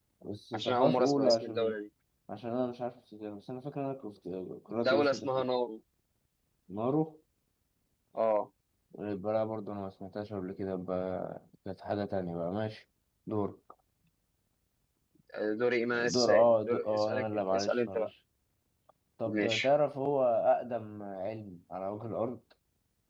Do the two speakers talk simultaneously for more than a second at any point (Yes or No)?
Yes